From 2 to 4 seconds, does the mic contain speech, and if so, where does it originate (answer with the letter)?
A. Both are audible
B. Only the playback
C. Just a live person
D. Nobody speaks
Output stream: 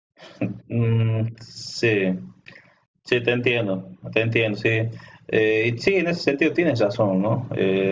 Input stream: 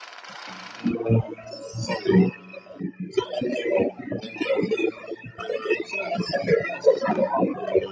B